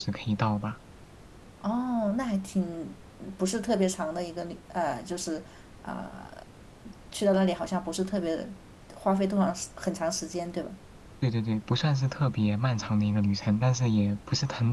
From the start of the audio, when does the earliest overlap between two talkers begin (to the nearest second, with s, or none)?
none